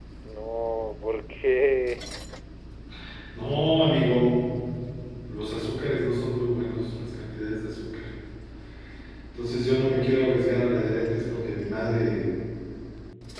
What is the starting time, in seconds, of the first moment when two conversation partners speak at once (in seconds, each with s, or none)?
none